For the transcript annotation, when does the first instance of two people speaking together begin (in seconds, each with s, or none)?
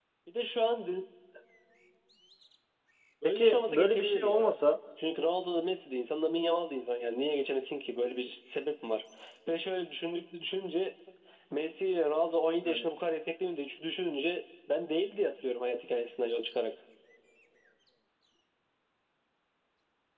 3.2 s